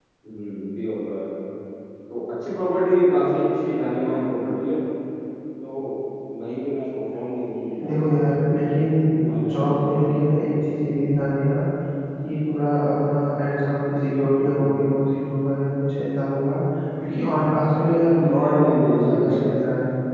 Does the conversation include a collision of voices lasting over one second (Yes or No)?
Yes